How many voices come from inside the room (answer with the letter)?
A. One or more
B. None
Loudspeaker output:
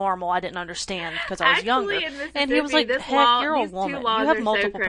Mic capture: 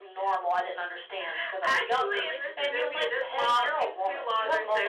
A